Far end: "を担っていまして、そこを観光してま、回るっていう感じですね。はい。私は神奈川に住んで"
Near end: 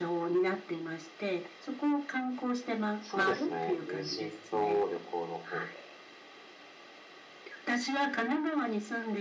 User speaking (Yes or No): Yes